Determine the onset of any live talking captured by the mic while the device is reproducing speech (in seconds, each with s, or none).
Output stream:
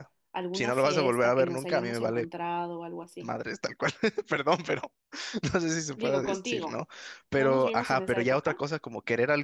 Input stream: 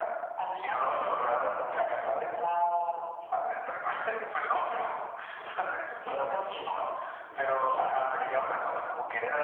none